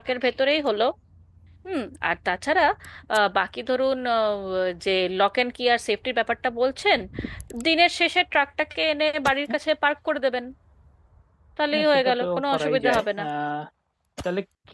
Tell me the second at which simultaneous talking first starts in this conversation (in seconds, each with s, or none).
11.7 s